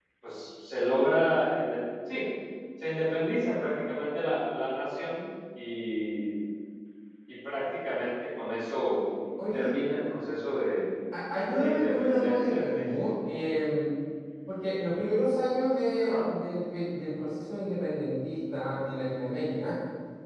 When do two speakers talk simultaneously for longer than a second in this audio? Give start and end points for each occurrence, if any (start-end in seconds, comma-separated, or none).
11.5-12.8